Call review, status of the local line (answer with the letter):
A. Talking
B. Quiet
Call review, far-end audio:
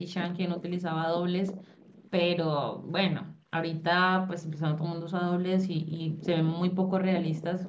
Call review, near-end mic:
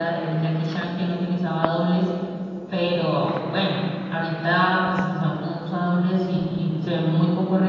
B